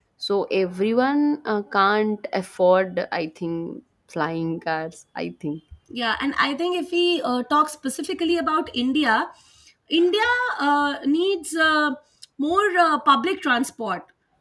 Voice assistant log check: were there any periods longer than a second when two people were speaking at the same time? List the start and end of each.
none

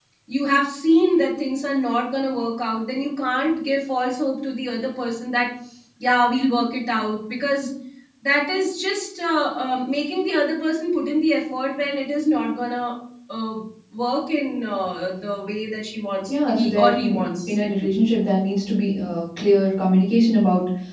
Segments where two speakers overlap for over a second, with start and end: 16.3-17.9

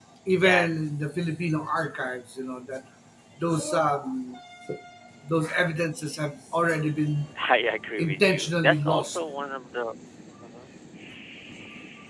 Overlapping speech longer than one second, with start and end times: 8.0-9.2

